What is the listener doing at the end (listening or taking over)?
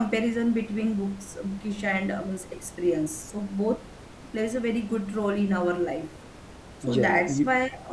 listening